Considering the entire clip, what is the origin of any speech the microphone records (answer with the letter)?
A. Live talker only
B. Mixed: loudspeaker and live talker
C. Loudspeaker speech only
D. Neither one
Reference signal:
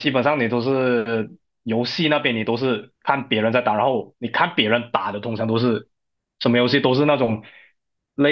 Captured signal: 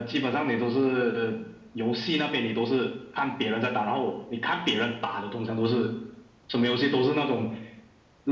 C